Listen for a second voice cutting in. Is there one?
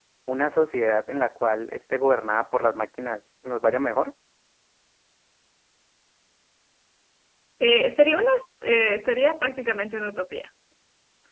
No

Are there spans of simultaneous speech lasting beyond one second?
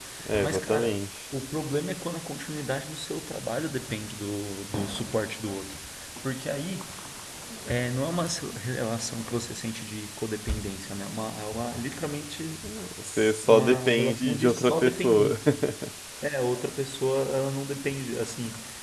Yes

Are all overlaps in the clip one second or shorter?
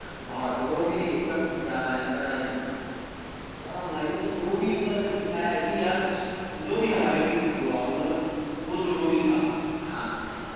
Yes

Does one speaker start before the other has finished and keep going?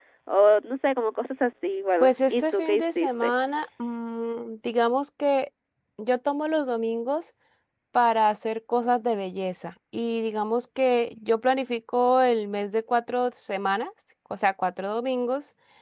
Yes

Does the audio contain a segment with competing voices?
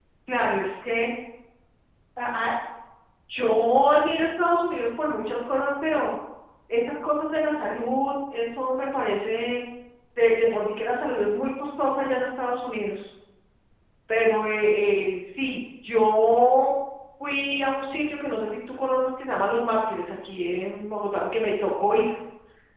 No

